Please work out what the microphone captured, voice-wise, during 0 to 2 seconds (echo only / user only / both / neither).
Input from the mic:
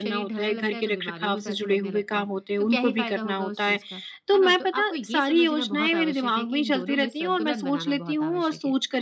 both